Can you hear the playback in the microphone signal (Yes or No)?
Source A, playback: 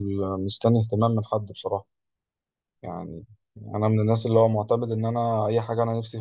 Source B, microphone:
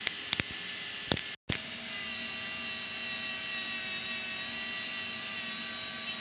No